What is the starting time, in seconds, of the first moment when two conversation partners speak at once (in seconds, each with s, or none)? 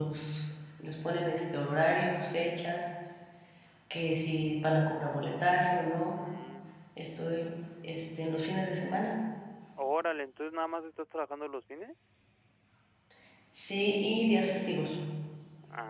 none